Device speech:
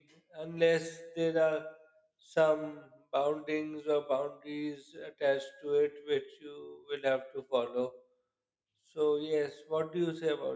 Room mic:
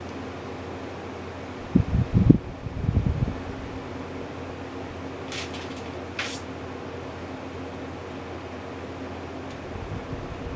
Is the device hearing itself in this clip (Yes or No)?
No